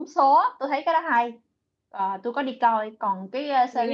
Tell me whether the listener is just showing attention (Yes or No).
Yes